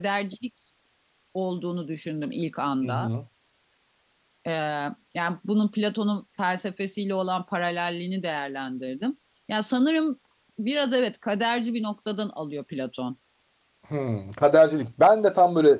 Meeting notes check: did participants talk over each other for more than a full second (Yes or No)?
No